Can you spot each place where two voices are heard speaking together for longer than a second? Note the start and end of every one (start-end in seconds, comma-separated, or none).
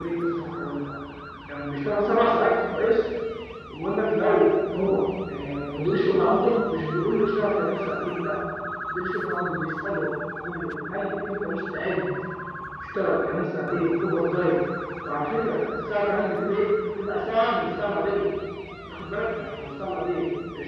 none